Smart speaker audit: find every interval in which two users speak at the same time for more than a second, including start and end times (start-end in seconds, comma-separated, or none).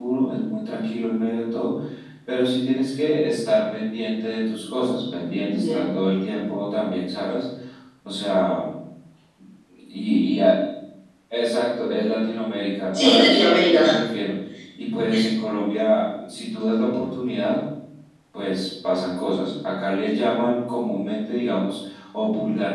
none